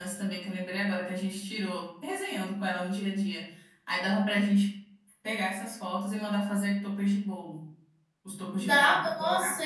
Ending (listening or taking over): taking over